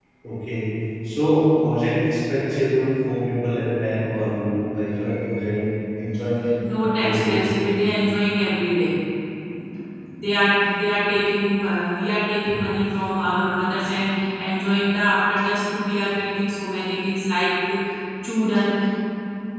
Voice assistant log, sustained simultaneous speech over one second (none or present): none